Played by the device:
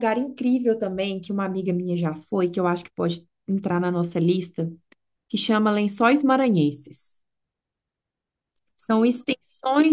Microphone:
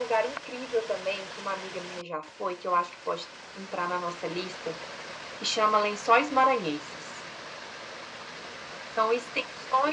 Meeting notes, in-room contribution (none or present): none